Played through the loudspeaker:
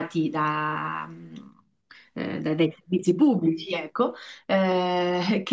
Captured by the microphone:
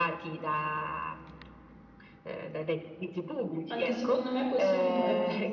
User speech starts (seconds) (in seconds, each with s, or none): 3.7 s